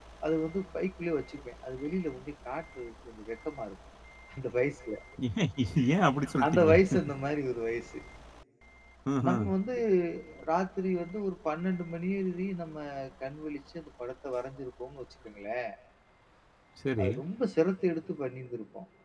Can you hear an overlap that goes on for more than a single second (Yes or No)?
No